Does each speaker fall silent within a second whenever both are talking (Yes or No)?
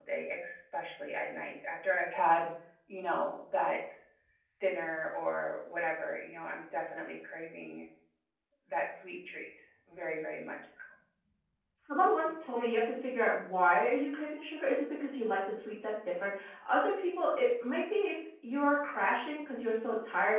Yes